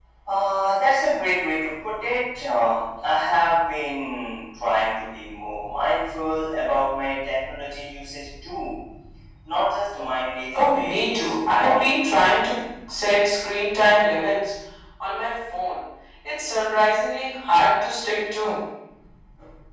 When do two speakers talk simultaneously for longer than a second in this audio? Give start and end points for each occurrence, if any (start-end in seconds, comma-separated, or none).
10.7-11.9